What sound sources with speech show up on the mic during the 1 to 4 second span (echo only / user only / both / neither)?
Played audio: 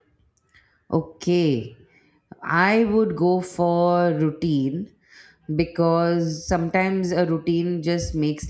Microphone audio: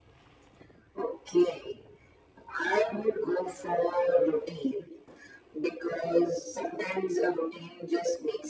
echo only